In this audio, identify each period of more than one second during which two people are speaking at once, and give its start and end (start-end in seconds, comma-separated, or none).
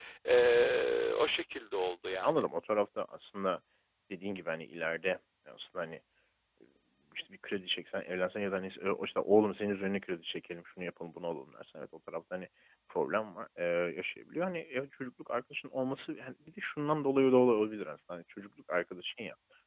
none